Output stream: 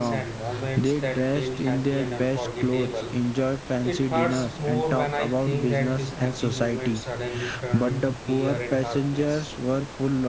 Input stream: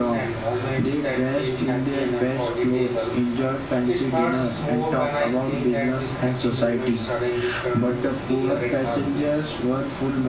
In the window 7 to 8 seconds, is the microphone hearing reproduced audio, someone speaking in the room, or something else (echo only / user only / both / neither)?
echo only